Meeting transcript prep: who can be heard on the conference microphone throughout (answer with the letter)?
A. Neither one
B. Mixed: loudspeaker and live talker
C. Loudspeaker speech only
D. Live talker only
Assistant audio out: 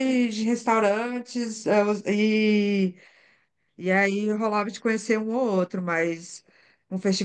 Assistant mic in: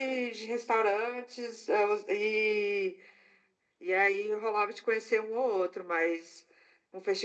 C